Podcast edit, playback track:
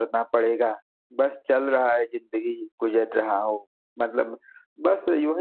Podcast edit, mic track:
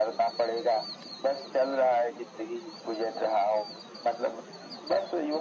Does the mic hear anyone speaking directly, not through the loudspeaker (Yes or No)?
No